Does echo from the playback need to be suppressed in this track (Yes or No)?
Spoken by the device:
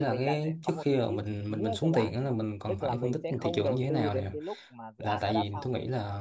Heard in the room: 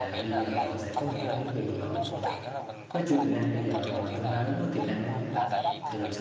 Yes